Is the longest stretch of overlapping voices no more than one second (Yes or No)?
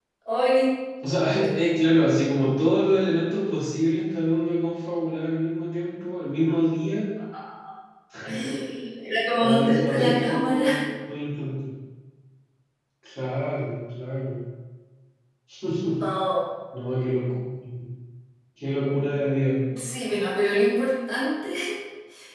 No